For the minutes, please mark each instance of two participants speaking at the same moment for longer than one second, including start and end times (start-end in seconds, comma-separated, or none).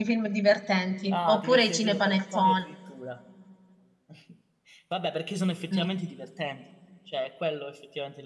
1.1-2.6